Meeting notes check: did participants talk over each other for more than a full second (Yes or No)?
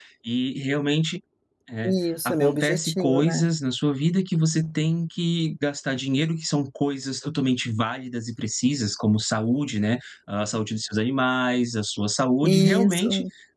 Yes